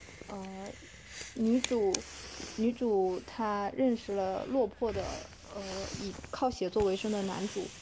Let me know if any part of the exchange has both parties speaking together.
No

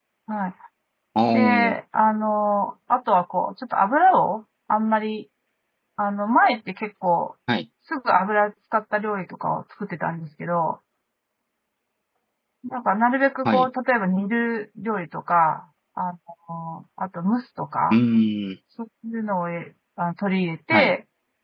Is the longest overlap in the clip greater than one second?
No

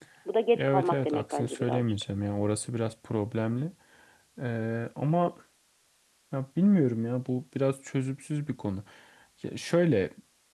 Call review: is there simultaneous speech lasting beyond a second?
Yes, from 0.6 s

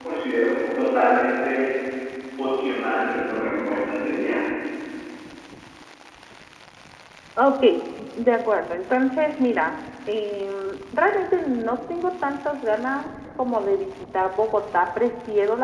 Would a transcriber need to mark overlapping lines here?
No

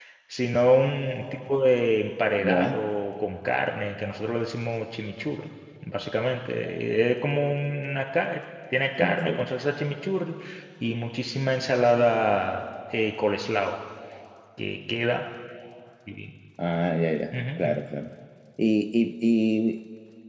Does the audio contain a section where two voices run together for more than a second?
No

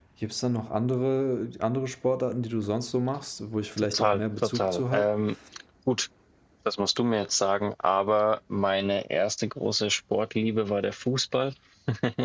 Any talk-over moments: Yes, from 3.8 s

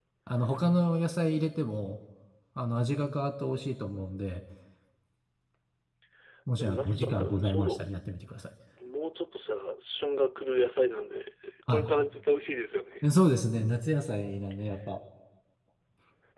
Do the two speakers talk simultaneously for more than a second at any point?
Yes, from 6.6 s

